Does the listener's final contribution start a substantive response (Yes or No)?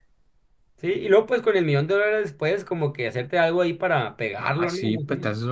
Yes